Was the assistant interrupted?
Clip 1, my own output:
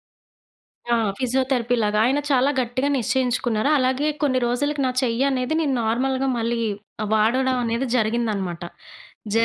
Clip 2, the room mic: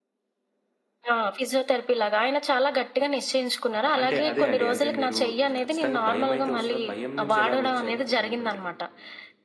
Yes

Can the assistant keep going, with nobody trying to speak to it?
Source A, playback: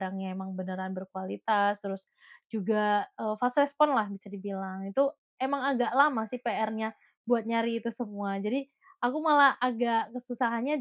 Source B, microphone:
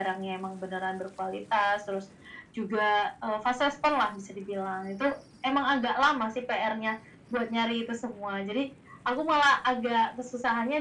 Yes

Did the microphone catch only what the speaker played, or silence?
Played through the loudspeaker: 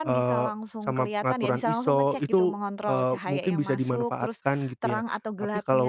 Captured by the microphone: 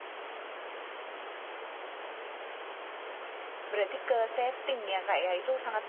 No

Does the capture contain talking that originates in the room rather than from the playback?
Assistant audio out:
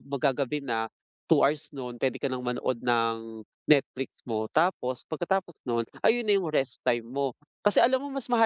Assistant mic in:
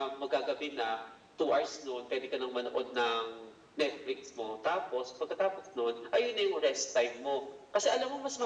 No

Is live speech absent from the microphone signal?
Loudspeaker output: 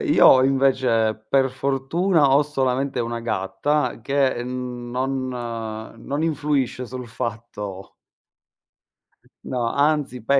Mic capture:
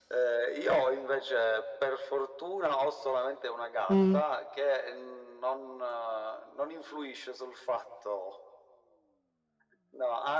No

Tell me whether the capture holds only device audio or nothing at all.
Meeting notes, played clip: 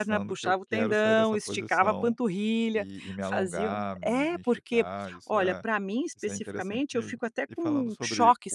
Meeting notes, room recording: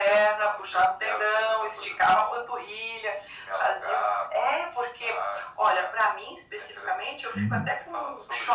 No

